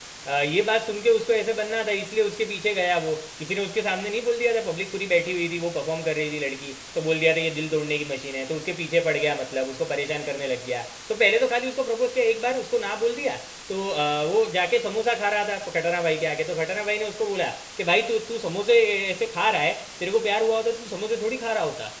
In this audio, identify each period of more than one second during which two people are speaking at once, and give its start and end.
none

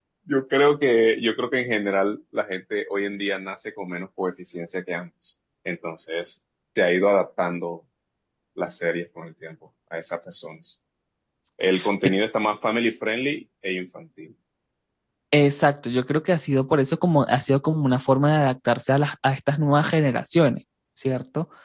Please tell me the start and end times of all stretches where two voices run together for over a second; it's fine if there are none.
none

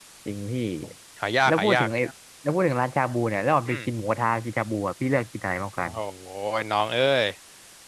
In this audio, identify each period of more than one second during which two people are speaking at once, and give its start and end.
none

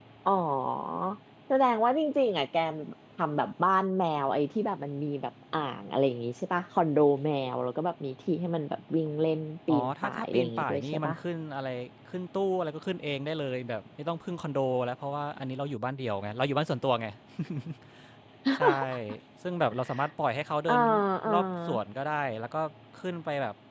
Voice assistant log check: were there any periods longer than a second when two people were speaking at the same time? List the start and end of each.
9.7-11.2

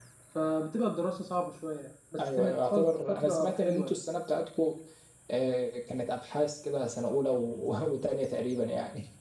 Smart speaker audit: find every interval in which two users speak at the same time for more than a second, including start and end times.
2.2-4.0

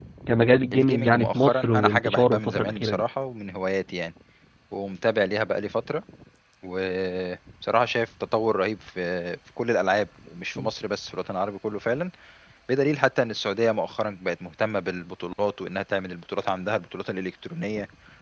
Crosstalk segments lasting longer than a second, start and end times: 0.7-3.0

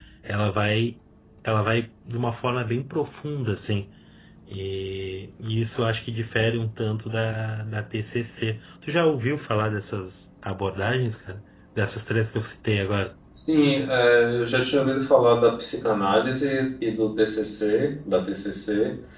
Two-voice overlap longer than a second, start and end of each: none

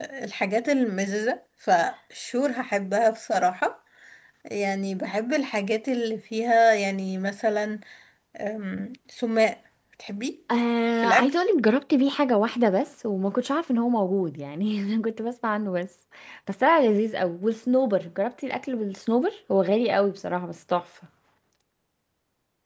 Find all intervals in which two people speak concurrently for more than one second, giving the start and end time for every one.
none

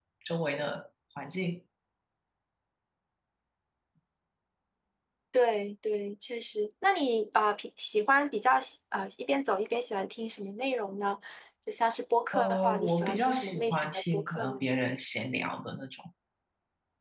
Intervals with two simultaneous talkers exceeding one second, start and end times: 12.3-14.6

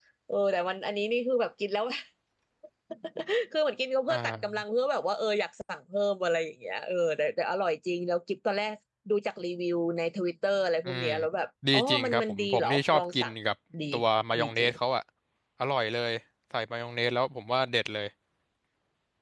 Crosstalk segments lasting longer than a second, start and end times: 11.7-13.3

